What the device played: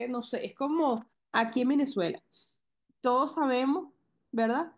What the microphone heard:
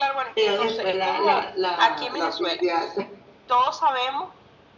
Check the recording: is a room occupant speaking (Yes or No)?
Yes